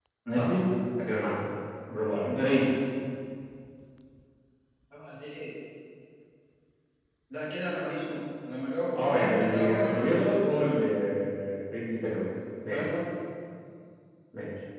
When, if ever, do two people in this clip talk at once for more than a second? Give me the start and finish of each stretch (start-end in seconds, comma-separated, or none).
9.0-10.3